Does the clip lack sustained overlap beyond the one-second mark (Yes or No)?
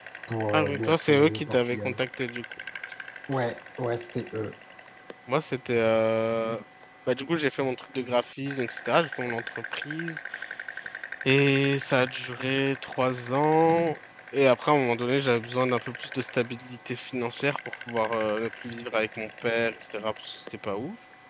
No